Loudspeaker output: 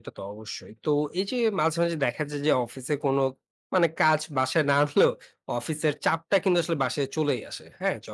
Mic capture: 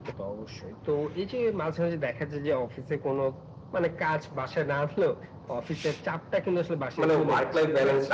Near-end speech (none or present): present